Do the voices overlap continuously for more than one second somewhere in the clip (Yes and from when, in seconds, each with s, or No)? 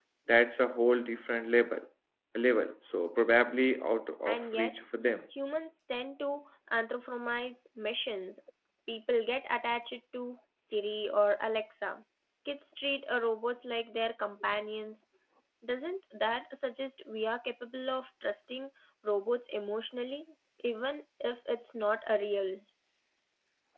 No